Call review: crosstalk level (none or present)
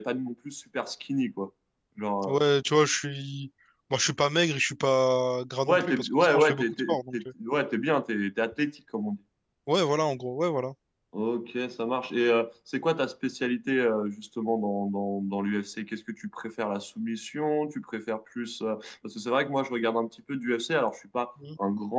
present